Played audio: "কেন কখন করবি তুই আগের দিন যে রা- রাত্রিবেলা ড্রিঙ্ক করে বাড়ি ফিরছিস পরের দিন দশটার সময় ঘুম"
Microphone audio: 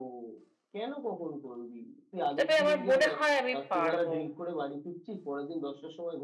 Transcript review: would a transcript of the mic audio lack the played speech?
No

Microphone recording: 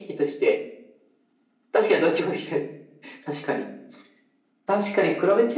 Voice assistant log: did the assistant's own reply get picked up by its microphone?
Yes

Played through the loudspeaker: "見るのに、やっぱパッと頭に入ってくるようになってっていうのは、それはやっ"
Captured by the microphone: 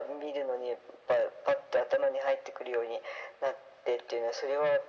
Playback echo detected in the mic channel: Yes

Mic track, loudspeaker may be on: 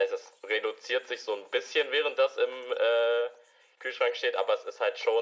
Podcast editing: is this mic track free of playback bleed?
No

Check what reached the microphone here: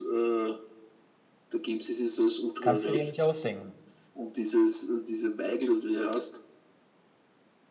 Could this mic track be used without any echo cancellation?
No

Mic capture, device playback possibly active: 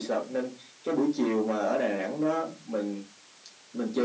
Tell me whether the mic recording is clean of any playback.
No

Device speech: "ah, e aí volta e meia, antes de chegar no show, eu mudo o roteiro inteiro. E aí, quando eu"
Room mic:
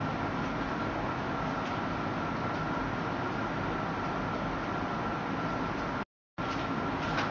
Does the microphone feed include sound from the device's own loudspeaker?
No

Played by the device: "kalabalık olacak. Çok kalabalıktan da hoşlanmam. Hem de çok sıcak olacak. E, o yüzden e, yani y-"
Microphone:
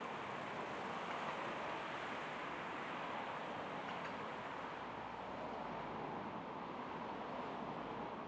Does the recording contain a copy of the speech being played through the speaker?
No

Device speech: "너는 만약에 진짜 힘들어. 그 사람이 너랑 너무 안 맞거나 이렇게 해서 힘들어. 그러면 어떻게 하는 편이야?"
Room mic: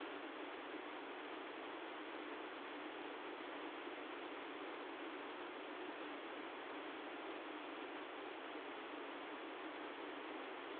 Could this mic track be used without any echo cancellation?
Yes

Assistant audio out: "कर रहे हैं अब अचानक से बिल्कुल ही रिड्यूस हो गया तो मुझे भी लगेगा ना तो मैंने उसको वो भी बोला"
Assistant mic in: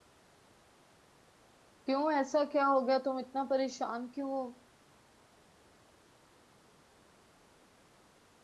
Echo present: No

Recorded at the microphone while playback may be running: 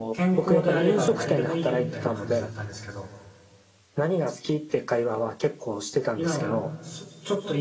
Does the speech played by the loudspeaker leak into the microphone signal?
Yes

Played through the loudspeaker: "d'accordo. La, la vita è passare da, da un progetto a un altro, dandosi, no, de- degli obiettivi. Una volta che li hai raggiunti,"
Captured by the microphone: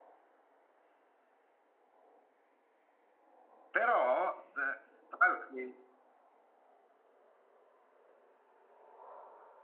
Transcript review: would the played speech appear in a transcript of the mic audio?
No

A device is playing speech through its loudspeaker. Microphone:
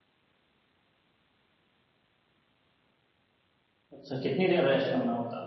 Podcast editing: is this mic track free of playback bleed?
Yes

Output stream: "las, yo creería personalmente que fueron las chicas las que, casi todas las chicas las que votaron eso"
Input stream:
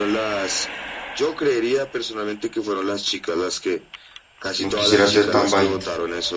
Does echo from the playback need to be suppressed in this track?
Yes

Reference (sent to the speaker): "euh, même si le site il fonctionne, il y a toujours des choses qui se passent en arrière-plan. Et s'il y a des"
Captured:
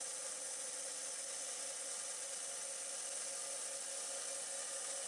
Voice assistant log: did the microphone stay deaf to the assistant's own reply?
Yes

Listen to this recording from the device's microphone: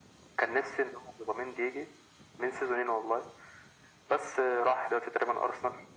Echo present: Yes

